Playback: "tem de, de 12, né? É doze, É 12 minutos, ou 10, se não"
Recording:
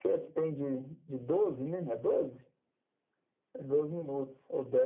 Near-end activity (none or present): none